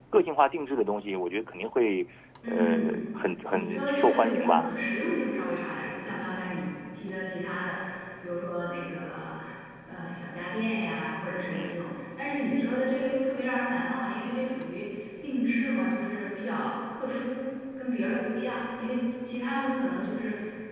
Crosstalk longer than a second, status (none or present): present